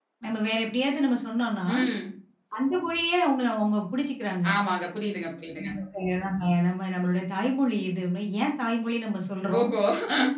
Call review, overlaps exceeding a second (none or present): none